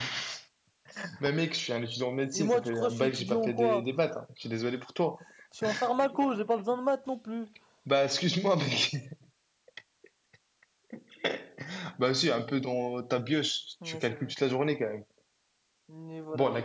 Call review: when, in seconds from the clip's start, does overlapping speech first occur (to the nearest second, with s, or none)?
2 s